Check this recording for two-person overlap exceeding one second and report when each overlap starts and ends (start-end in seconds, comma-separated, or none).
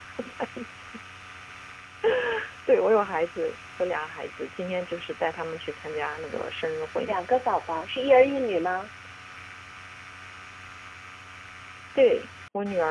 none